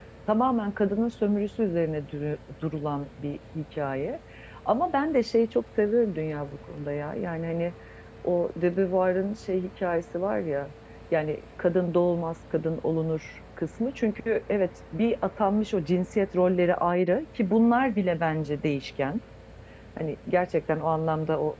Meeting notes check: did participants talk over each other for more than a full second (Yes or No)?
No